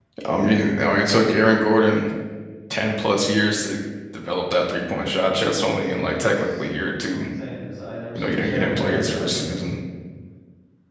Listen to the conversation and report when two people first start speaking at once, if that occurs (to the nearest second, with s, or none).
5 s